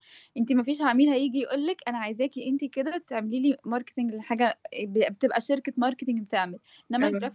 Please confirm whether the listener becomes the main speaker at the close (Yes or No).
No